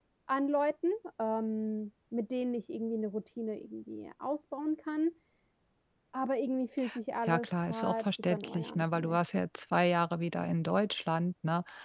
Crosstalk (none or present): present